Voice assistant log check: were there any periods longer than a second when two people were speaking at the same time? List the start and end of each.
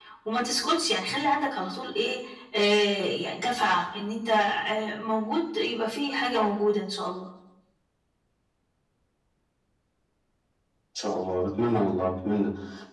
none

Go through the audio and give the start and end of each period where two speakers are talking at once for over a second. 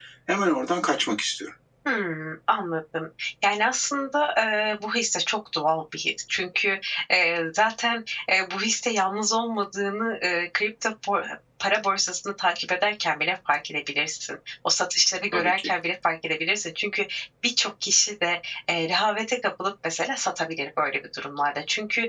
none

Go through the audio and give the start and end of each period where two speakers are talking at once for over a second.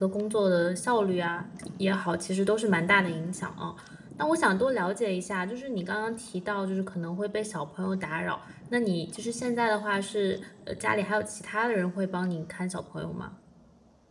none

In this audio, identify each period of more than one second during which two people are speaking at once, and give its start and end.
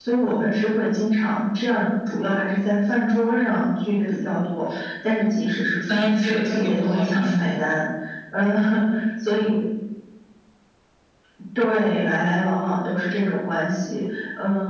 5.9-7.5

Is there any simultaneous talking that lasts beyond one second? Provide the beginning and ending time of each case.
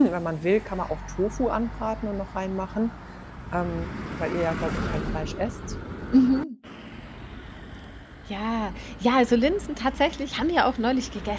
none

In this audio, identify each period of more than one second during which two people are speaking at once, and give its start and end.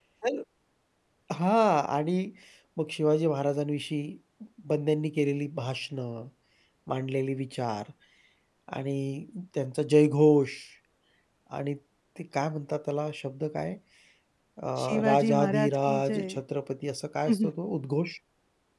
15.0-16.4

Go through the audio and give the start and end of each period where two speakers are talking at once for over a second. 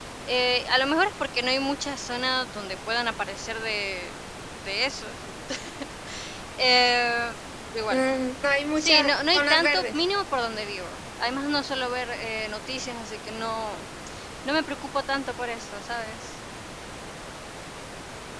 8.8-10.0

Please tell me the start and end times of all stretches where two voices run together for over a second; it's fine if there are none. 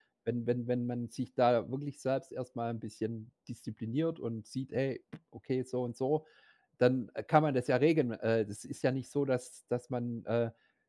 none

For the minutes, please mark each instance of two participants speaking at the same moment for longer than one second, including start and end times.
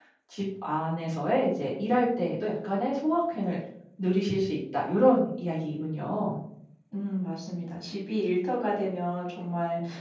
none

